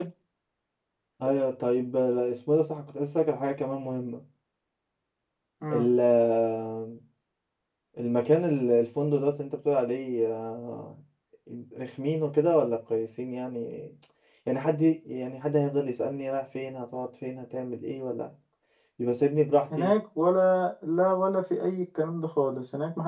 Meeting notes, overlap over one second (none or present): none